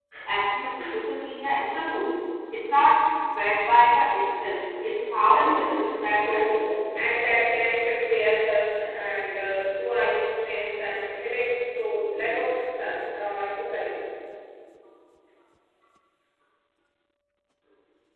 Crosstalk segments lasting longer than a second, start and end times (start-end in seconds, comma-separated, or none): 5.2-6.6